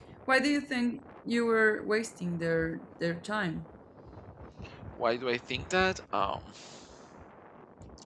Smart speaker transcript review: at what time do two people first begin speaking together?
none

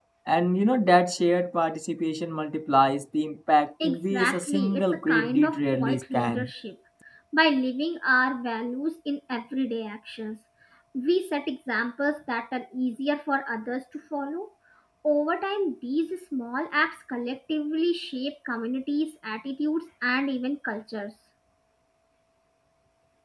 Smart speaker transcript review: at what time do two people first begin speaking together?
3.8 s

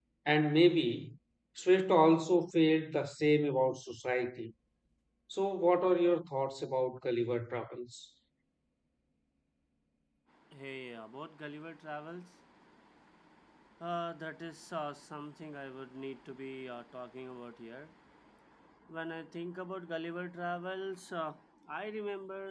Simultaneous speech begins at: none

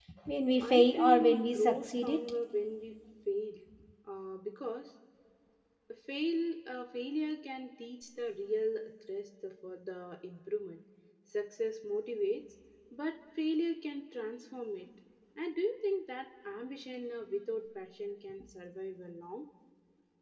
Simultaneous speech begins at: 0.6 s

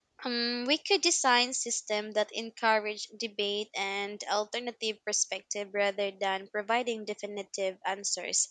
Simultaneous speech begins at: none

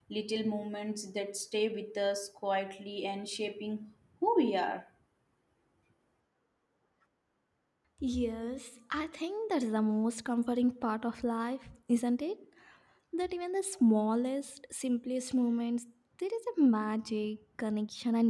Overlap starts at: none

